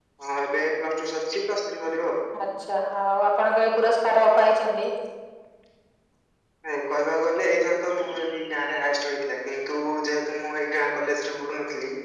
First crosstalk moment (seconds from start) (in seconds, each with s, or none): none